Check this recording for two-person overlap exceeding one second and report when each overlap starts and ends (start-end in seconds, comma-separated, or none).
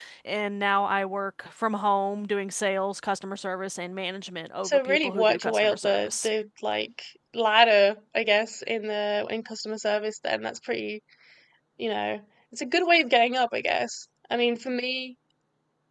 4.6-6.3